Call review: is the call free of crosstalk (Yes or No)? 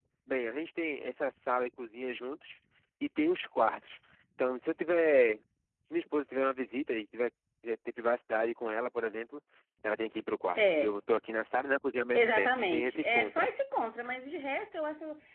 No